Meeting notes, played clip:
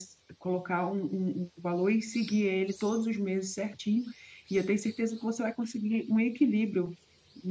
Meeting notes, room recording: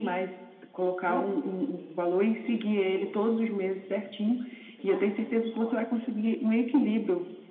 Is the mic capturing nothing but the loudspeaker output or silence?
No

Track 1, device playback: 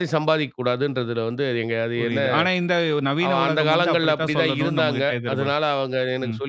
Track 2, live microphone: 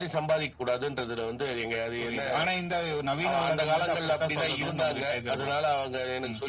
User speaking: No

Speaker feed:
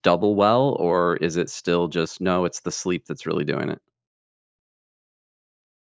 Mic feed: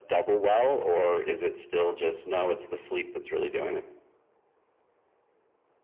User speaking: No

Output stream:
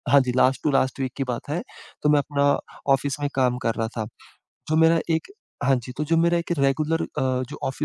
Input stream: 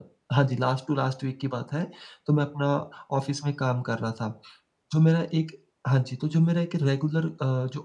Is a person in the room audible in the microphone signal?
No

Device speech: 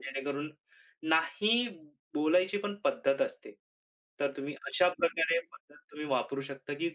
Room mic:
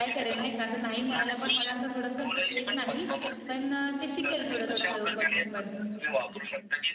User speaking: Yes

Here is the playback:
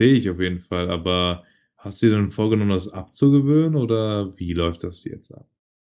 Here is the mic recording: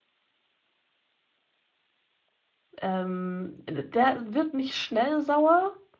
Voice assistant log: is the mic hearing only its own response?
No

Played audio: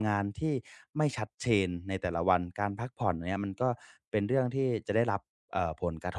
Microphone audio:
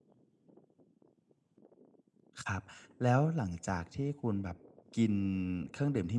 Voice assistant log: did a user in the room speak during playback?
Yes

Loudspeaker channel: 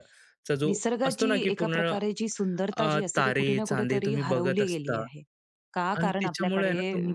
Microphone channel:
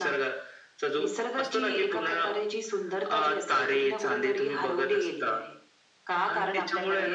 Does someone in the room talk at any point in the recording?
No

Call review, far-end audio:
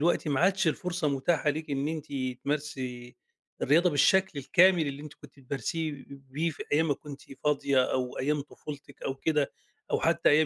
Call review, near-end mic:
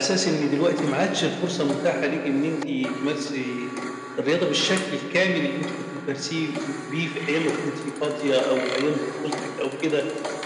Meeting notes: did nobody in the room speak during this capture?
Yes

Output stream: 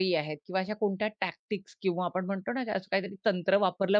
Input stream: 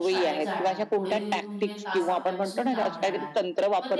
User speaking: Yes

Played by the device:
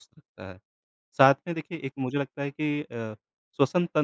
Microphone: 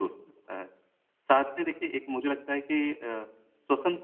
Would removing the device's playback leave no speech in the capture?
Yes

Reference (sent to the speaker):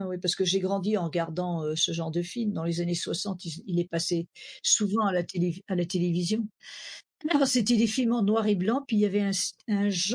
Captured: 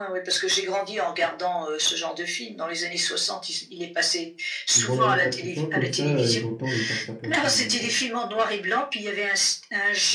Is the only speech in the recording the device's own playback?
No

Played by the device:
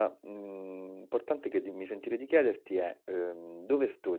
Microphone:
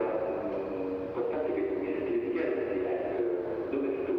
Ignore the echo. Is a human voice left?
No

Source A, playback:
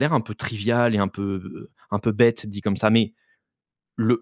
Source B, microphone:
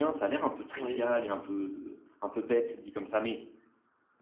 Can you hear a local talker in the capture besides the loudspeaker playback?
Yes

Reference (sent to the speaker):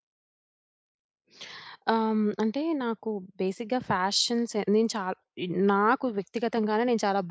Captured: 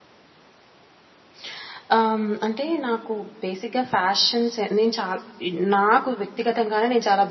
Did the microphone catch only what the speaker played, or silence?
Yes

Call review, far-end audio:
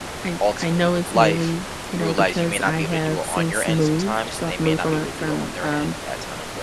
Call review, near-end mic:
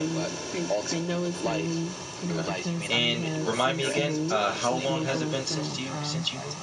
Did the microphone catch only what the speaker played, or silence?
No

